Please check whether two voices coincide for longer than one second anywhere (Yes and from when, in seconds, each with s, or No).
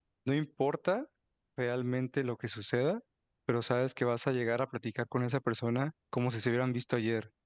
No